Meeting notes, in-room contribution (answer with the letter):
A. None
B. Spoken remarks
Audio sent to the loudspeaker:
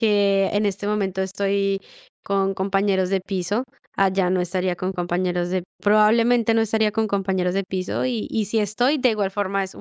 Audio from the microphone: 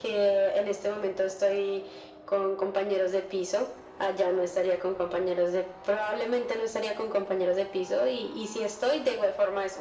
A